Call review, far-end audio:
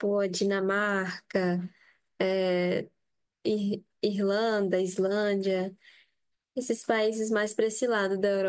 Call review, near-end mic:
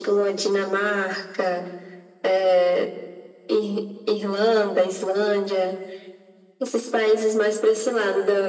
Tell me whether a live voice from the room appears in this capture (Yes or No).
No